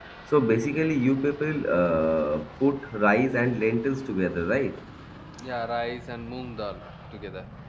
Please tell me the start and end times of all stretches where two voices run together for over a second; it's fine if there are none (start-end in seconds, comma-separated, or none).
none